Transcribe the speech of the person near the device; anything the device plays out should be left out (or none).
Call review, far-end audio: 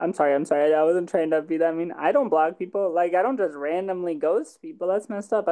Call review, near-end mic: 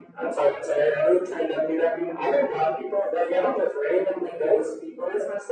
none